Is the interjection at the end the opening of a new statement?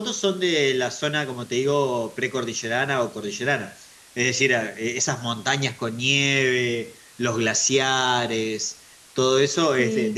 No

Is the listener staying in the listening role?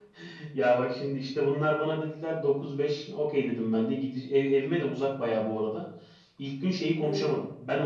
Yes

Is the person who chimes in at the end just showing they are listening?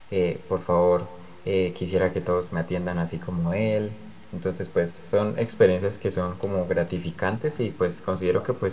Yes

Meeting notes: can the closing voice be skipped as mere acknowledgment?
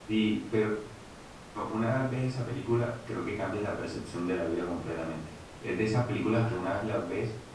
Yes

